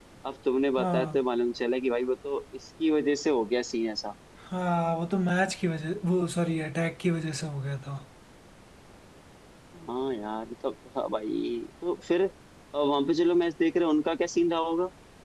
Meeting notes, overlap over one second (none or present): none